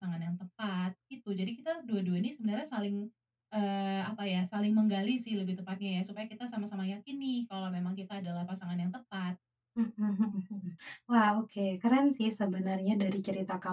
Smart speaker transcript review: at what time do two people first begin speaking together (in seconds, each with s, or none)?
none